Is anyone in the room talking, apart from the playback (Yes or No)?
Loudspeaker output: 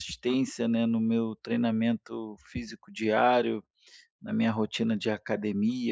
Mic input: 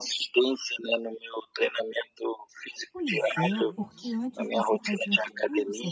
Yes